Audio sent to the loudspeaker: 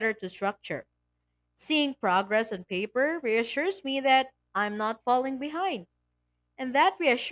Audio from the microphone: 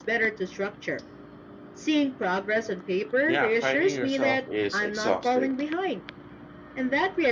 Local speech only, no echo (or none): Yeah, fighting yourself is exhausting.